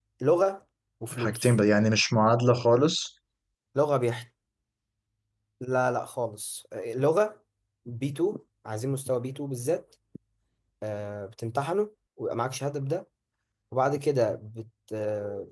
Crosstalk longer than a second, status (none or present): none